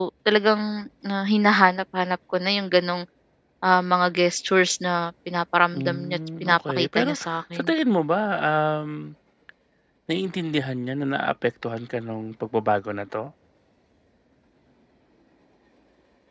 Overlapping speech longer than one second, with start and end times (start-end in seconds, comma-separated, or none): 5.7-7.6